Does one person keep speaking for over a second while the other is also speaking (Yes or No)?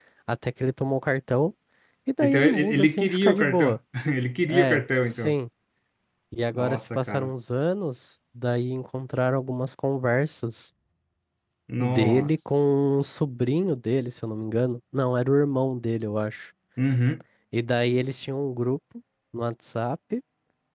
Yes